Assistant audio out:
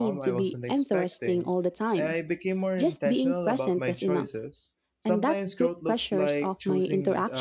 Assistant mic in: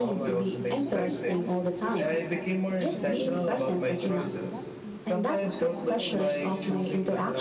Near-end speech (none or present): present